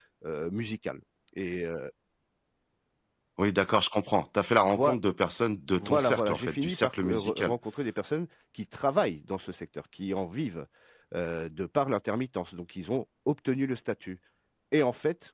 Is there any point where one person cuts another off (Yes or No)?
Yes